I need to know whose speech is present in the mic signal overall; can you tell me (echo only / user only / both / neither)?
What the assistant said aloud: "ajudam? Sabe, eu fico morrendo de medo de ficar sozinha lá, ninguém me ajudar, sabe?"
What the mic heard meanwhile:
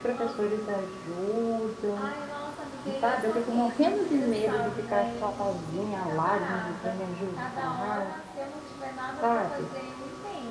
both